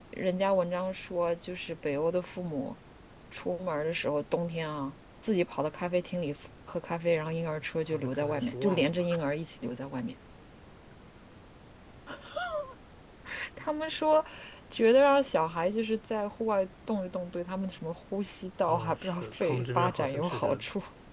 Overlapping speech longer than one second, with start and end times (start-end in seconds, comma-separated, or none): 7.9-9.1, 18.6-20.6